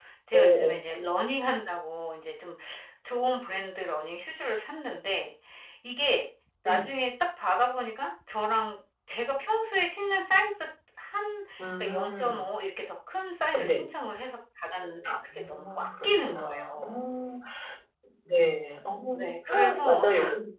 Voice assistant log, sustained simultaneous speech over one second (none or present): present